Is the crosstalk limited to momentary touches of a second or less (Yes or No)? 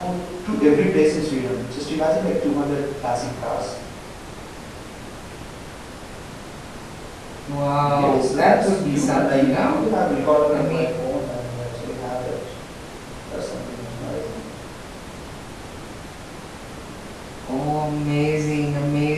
No